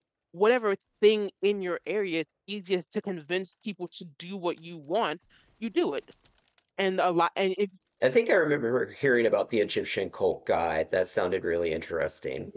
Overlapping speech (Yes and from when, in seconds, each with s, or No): No